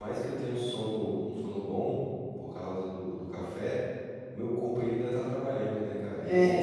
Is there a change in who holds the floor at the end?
Yes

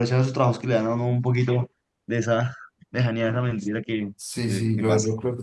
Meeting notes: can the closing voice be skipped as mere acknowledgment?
No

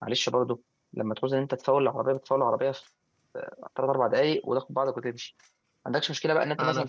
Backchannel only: Yes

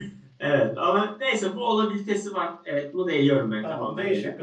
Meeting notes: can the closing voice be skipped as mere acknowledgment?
No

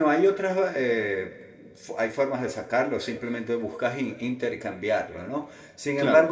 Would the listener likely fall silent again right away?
Yes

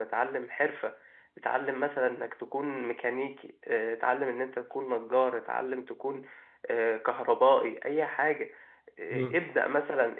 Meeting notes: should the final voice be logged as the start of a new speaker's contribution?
No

